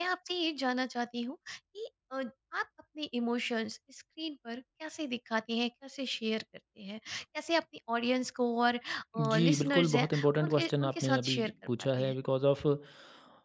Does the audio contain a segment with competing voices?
Yes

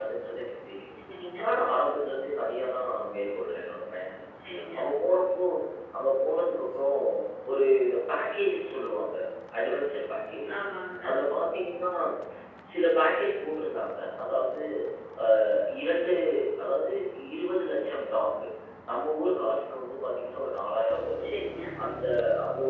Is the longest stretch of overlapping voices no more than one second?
Yes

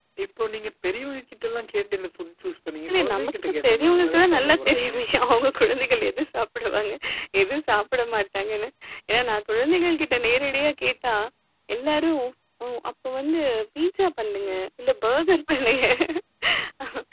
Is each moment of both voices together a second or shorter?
No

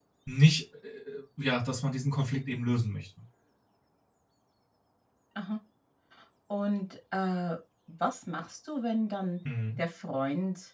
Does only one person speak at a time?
Yes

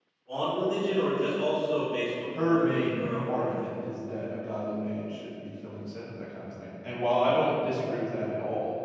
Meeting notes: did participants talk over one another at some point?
Yes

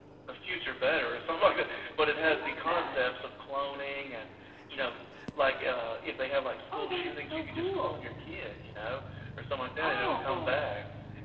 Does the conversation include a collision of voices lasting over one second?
Yes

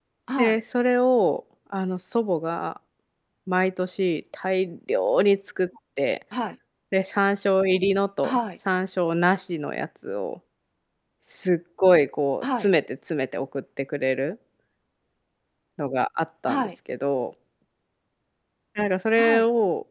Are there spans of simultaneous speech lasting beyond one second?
No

